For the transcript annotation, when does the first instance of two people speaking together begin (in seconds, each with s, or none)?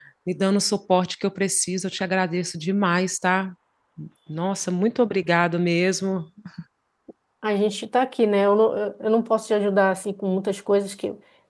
none